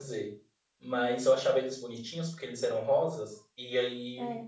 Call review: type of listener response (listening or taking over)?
listening